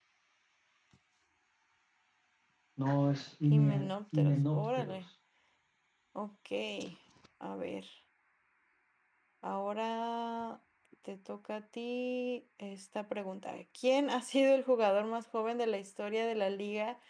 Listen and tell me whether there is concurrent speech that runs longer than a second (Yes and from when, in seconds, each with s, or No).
Yes, from 3.4 s